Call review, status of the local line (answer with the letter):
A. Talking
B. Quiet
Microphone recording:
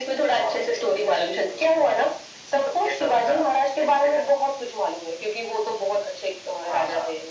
B